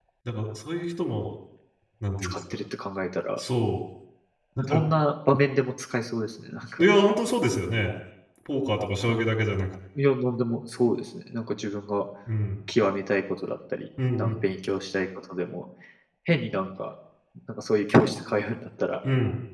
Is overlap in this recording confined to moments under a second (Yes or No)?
Yes